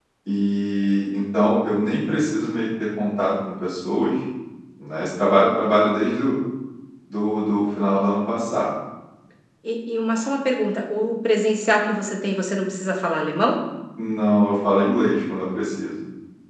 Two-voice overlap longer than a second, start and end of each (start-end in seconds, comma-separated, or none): none